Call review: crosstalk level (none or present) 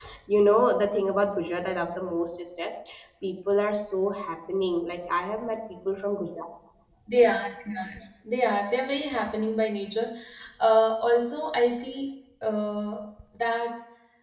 none